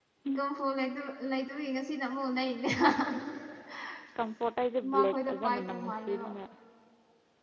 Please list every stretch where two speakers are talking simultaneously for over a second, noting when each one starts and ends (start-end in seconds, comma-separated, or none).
4.9-6.3